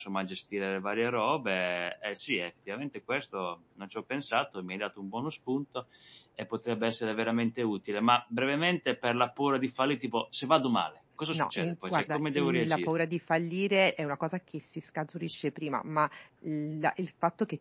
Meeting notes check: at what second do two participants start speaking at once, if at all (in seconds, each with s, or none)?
11.3 s